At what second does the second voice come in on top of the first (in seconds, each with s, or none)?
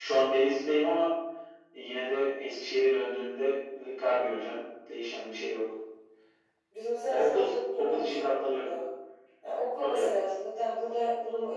7.1 s